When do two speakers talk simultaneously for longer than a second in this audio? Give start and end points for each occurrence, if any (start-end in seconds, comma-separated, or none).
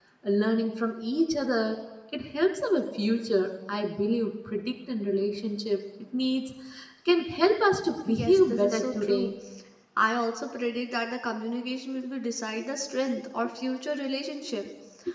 8.1-9.3